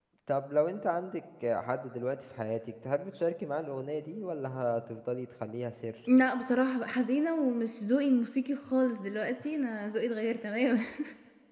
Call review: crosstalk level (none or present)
none